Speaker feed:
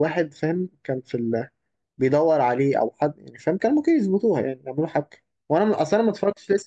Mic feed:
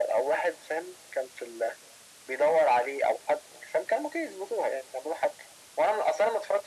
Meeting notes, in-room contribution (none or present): none